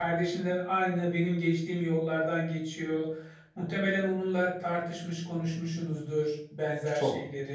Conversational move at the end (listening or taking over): listening